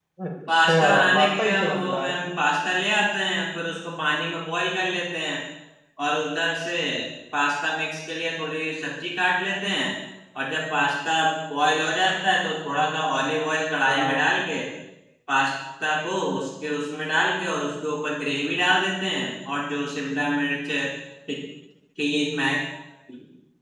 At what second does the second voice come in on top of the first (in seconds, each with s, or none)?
0.5 s